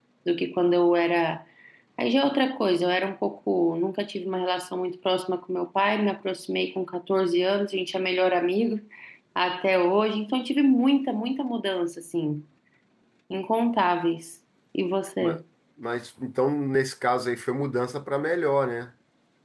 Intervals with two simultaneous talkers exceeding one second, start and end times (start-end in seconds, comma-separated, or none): none